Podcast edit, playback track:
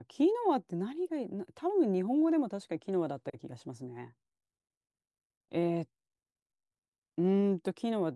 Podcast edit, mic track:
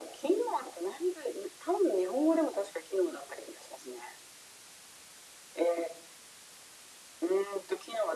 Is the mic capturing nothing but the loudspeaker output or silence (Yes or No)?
Yes